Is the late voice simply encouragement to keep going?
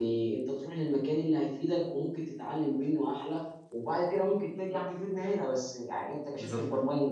Yes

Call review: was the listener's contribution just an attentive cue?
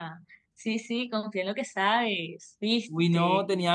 No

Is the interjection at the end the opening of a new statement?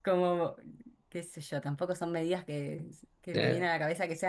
No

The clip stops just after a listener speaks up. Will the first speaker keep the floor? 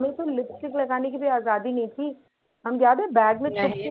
Yes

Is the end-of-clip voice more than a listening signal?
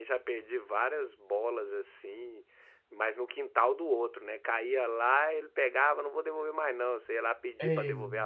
No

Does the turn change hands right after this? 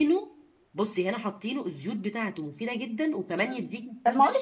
Yes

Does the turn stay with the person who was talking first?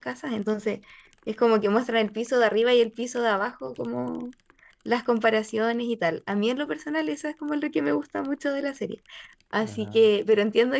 Yes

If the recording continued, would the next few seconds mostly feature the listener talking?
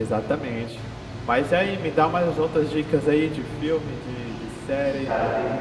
Yes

